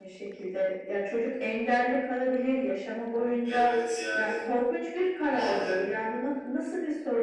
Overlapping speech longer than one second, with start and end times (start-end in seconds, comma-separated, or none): none